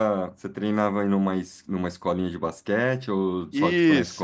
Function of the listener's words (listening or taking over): taking over